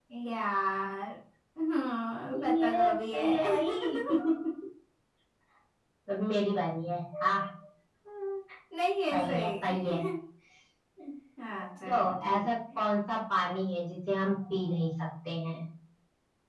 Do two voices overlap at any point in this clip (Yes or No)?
Yes